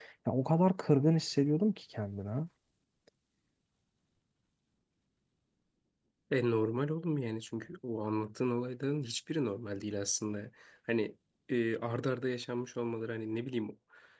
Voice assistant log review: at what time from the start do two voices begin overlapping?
none

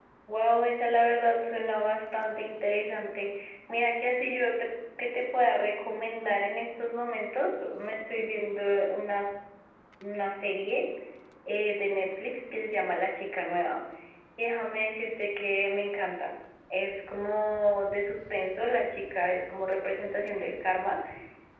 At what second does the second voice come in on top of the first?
none

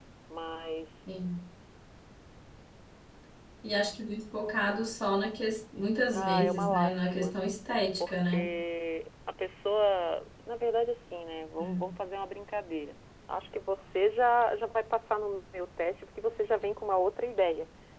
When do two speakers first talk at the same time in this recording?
6.1 s

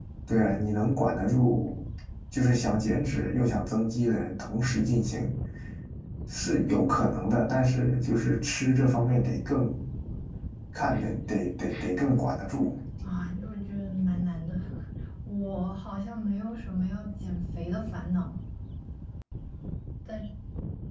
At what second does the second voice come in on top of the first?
none

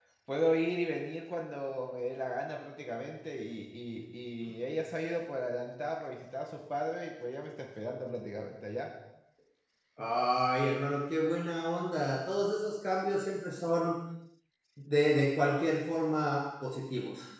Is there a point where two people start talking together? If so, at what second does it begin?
none

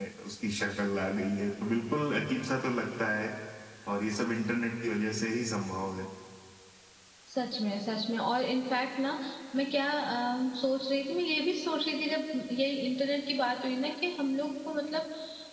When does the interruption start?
none

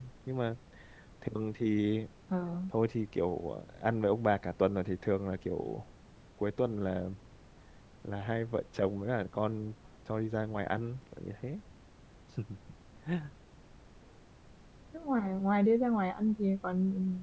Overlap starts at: none

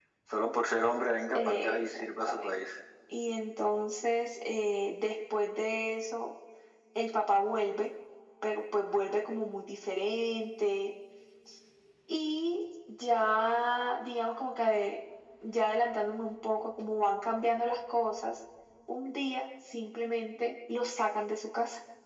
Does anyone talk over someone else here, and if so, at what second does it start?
1.4 s

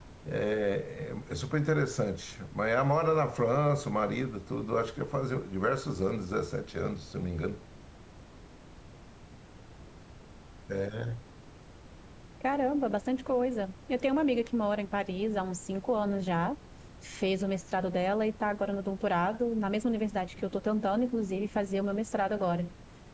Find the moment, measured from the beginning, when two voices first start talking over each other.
none

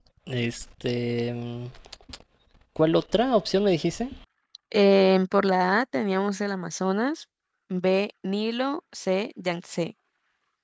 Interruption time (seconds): none

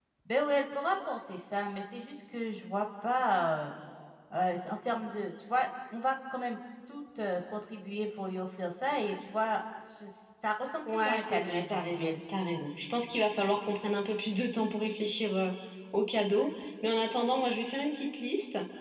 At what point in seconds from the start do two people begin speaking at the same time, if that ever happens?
10.9 s

